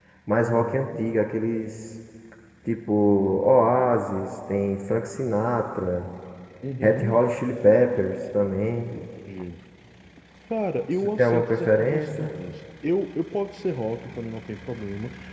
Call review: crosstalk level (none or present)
present